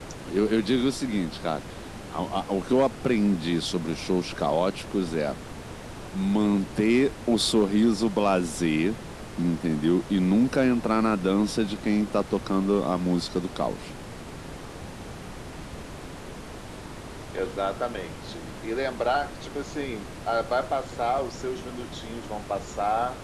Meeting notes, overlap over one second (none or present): none